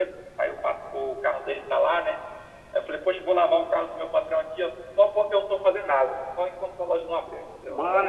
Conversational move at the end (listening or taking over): taking over